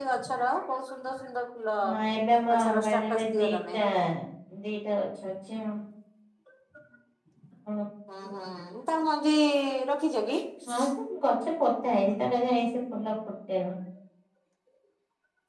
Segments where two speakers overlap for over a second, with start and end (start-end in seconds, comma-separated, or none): 2.5-3.7